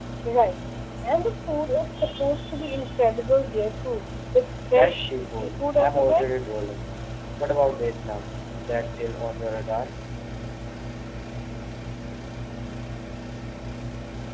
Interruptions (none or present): present